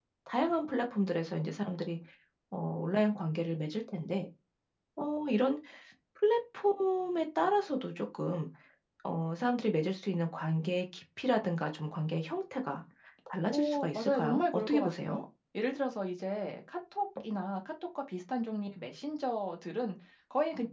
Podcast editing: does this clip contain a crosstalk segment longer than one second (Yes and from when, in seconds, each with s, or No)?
Yes, from 13.5 s